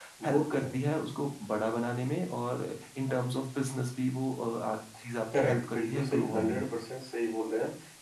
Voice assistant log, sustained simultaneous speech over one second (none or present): present